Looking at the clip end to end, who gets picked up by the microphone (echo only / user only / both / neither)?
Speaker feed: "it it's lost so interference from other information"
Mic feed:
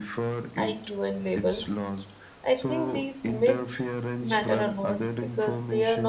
both